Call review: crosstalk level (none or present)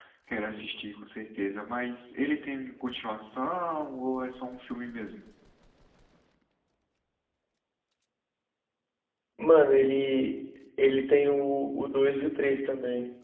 none